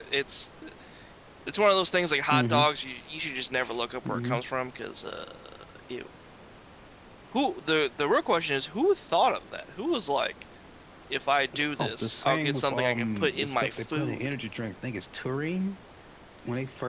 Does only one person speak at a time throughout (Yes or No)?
No